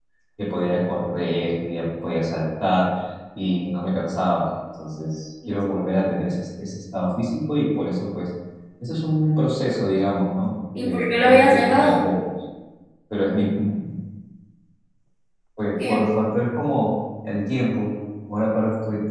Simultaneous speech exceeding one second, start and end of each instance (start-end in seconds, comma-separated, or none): 10.8-12.0